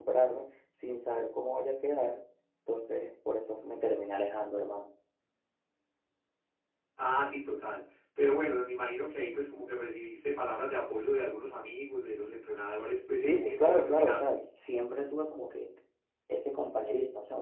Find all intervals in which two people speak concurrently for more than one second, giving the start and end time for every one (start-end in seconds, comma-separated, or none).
13.2-14.4